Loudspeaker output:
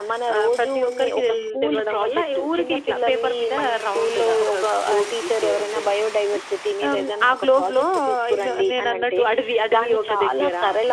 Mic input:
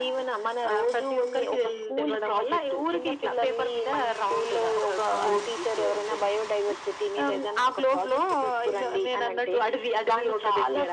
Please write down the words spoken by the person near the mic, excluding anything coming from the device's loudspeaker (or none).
అవును.